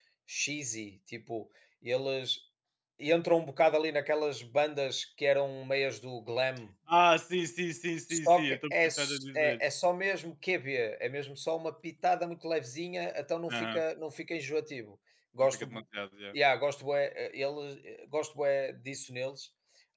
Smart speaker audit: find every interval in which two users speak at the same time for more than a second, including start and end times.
8.1-9.6

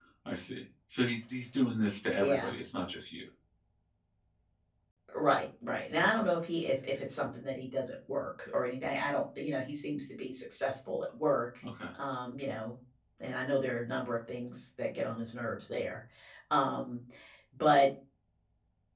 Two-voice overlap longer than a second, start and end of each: none

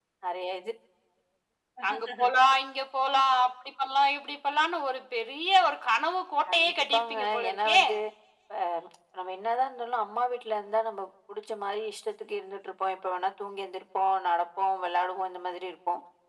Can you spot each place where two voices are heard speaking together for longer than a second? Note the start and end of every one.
6.5-7.8

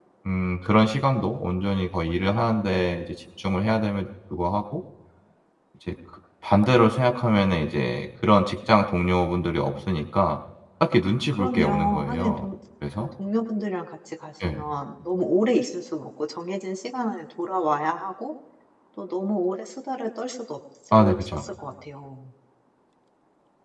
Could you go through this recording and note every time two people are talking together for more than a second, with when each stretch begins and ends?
11.0-12.5

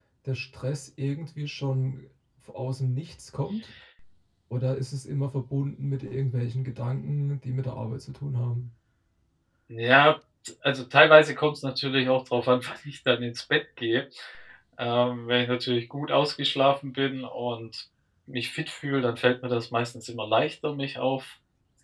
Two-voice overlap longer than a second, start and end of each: none

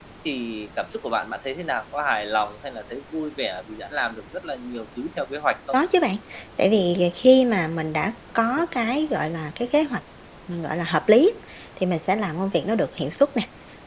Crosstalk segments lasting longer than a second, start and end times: none

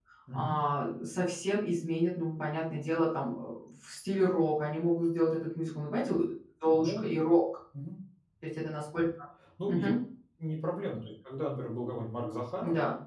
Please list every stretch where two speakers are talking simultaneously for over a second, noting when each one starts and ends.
none

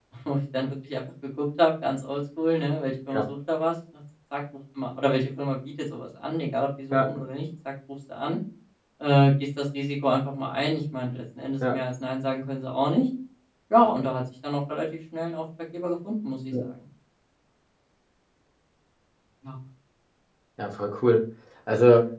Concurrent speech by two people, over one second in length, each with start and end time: none

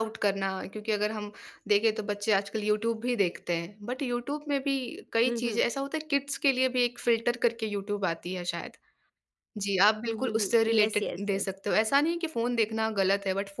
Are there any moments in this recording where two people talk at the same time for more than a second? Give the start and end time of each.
10.1-11.4

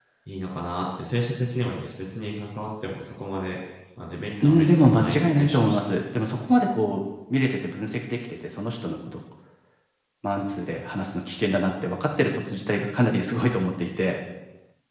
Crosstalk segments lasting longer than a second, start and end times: 4.4-5.9

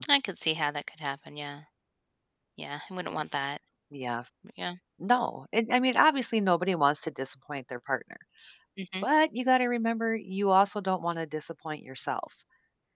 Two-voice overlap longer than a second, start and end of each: none

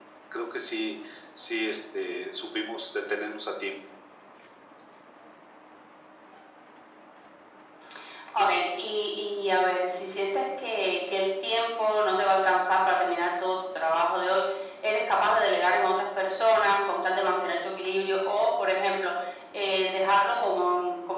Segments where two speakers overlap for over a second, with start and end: none

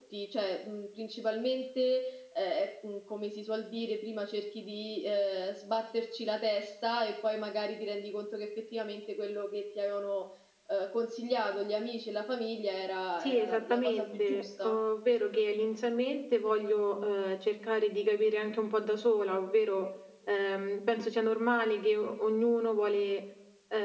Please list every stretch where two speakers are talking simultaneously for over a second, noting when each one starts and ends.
13.2-14.8

